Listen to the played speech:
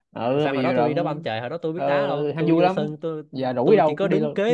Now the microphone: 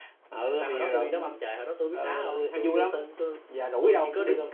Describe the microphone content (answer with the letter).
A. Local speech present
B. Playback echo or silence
B